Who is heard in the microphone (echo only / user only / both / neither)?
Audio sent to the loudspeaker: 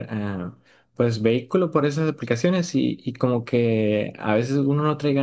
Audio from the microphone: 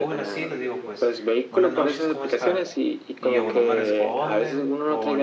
both